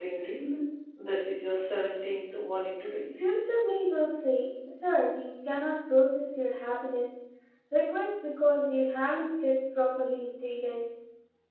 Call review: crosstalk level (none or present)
none